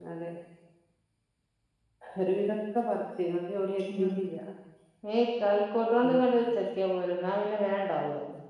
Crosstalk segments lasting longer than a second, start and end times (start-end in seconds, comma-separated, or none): none